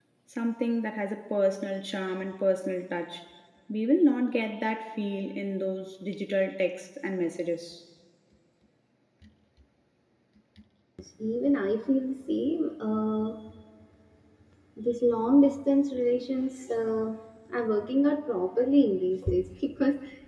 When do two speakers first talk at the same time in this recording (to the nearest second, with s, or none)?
none